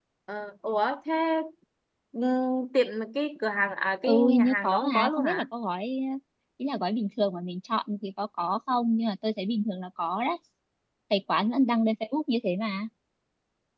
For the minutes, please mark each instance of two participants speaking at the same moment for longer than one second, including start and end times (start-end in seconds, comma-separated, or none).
4.0-5.5